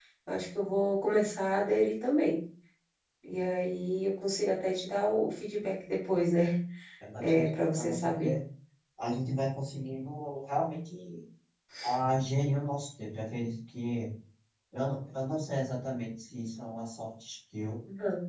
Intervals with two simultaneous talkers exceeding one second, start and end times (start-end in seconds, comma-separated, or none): 7.2-8.4